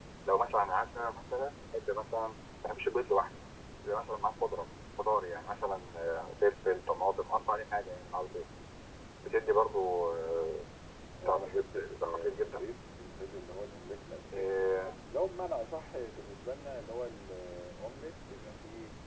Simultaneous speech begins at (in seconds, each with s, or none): 11.2 s